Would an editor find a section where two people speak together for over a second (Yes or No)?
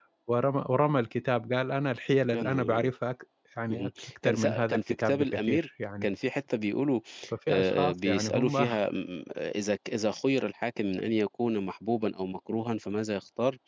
Yes